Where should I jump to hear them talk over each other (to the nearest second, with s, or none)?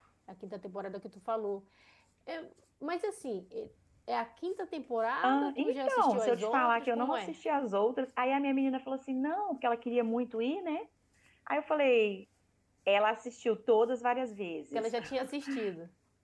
5 s